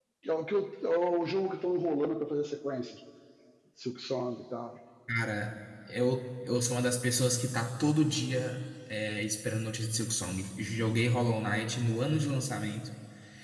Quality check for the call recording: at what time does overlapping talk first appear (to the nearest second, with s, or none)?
none